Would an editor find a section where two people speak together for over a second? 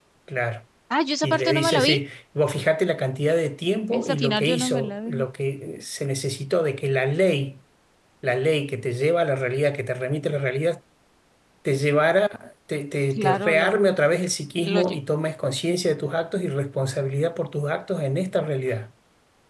Yes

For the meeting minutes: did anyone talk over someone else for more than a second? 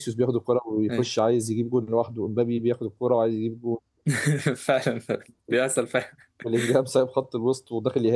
No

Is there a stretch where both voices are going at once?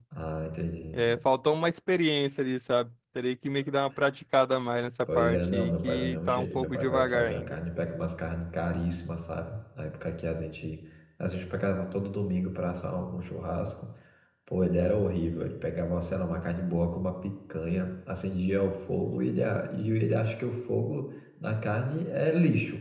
Yes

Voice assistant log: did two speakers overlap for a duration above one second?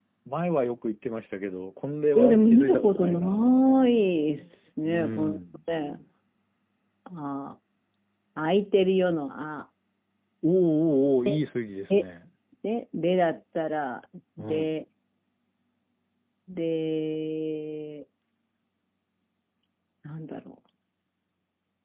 Yes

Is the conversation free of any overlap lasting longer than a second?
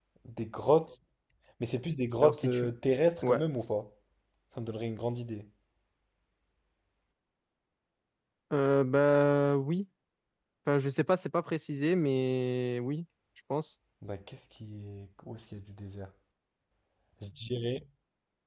Yes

